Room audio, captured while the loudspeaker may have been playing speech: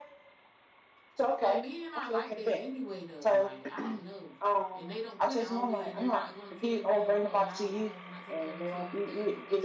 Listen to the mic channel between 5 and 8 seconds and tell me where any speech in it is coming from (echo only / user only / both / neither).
both